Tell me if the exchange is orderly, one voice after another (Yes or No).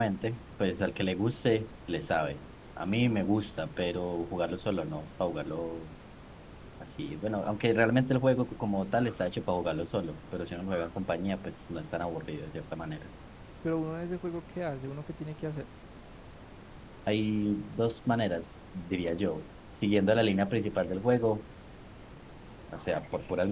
Yes